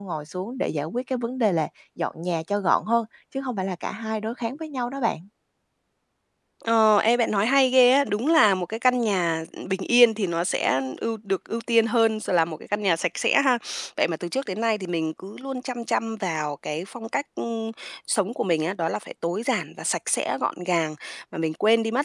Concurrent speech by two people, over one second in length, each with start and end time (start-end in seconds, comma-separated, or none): none